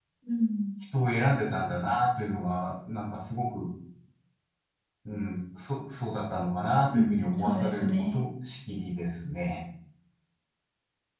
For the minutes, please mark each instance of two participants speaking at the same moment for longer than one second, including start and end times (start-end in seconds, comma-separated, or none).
6.9-8.2